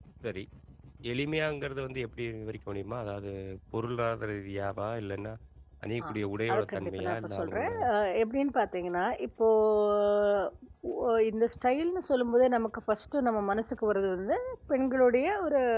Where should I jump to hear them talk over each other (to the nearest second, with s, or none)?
7 s